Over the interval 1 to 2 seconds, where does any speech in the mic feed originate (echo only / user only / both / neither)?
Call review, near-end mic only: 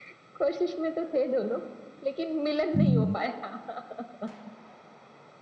echo only